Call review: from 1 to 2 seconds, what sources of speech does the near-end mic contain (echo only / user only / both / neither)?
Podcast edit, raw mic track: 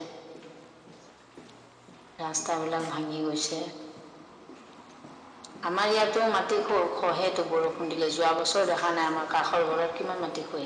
neither